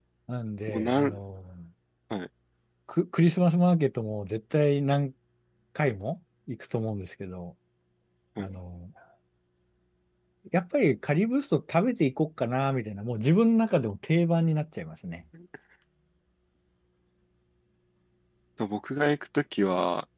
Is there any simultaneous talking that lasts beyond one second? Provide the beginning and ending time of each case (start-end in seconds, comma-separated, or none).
none